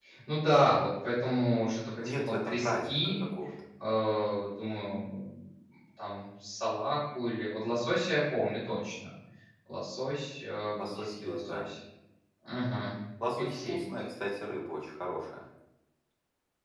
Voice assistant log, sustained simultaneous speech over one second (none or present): present